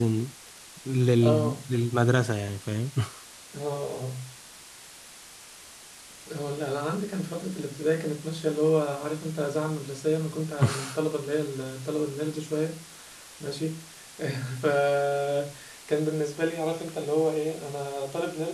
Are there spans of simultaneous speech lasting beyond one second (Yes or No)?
No